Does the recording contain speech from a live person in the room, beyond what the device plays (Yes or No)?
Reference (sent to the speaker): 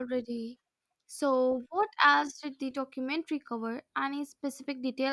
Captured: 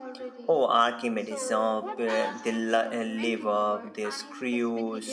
Yes